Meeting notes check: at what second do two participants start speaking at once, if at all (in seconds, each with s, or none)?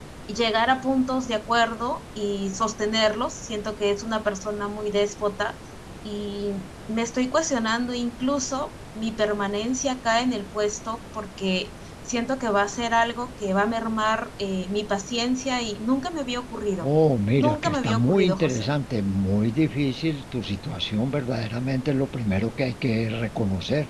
17.3 s